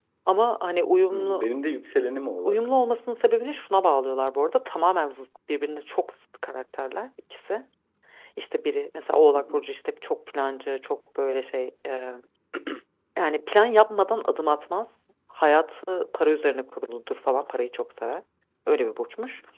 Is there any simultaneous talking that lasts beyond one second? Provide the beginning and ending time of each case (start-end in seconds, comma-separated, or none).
none